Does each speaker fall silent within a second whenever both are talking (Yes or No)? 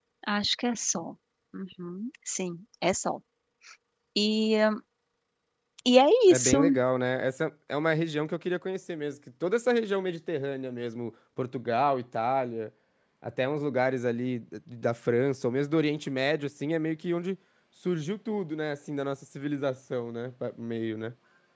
Yes